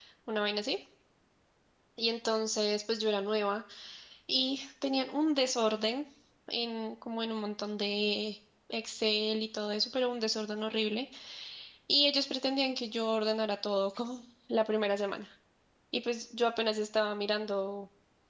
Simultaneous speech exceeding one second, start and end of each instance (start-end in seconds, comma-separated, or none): none